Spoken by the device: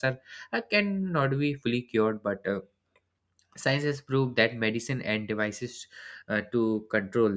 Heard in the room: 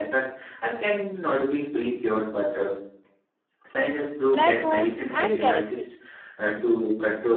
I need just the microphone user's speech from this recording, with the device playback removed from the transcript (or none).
black holes, and galaxies.